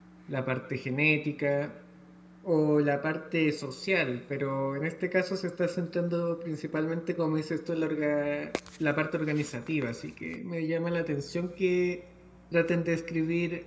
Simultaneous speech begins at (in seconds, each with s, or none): none